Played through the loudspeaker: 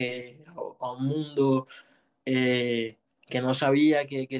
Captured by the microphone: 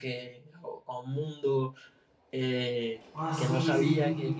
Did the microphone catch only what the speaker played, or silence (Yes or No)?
No